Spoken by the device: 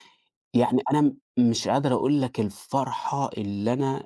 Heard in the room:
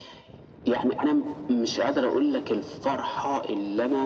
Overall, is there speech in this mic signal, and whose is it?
echo only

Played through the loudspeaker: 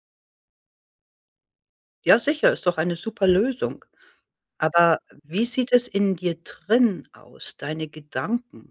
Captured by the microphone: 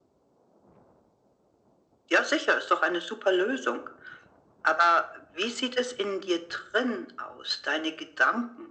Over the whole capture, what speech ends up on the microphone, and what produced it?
echo only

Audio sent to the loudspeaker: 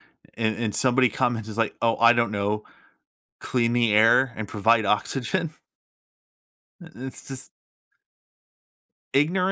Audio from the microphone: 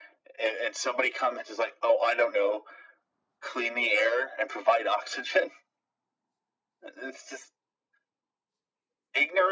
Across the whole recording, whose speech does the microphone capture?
echo only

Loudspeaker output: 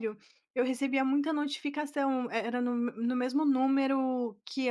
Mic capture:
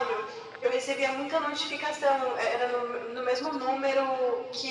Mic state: echo only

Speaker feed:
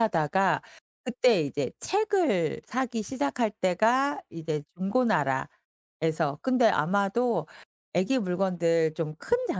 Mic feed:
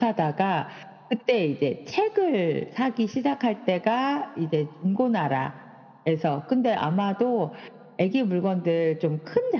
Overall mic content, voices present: echo only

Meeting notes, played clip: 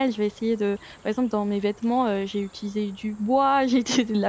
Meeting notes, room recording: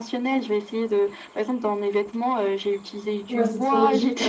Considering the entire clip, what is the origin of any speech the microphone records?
both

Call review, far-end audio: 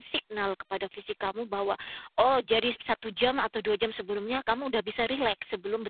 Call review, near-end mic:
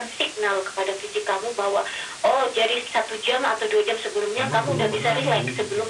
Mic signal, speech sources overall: both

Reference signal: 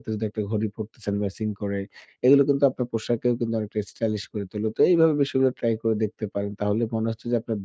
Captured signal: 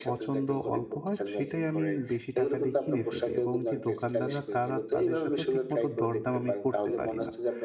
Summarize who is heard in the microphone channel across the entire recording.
both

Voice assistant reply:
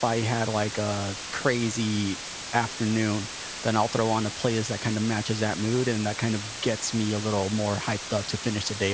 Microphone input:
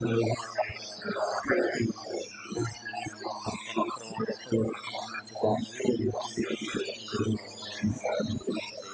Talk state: echo only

